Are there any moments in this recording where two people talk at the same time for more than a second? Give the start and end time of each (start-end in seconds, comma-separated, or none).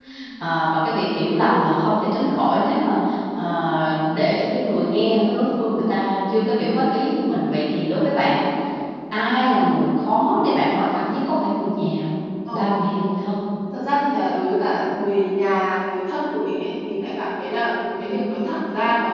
none